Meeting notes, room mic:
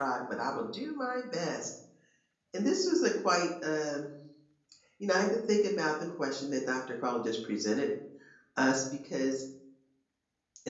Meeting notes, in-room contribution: present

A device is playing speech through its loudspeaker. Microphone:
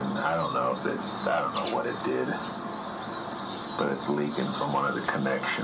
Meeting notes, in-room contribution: none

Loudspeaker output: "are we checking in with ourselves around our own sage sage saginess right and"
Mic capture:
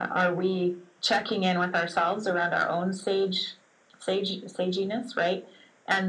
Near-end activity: none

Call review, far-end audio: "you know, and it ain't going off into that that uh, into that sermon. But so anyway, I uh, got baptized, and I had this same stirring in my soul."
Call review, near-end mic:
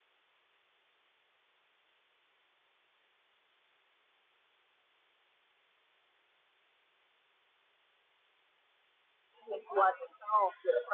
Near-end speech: present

